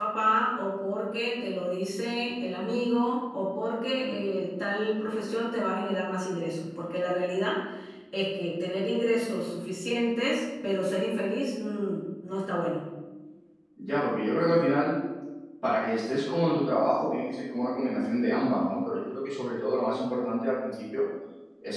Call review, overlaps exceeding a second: none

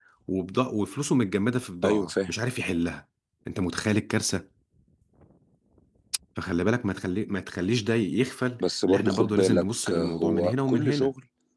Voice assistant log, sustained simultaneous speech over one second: present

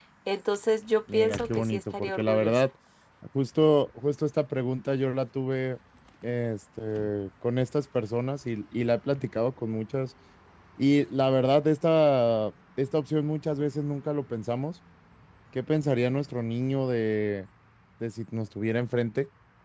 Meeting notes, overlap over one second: present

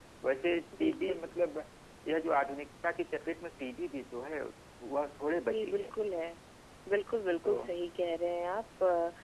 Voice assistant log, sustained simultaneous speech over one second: none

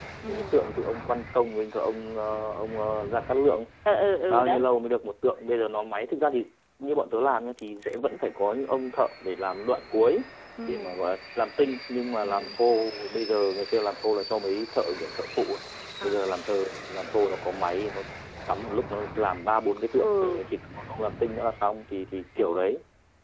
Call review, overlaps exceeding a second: none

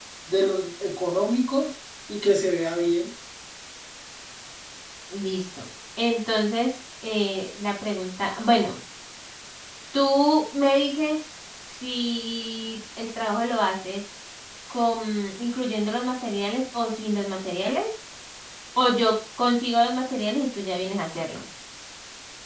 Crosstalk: none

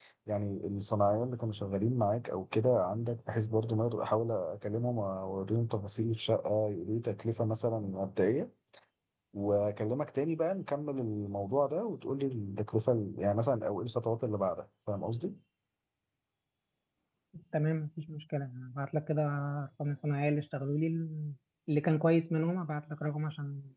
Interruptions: none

